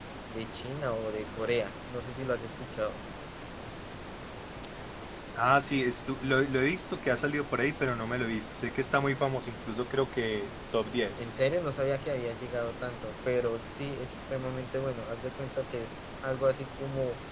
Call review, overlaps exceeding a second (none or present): none